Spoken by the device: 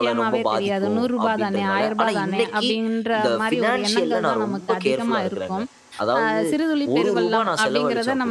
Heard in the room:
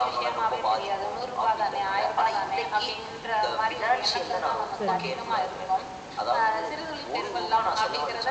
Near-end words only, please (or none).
சரிங்க.